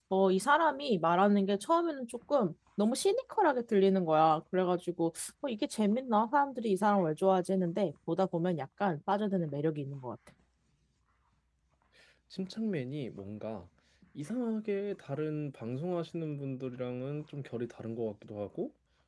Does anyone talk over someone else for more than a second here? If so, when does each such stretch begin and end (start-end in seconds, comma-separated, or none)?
none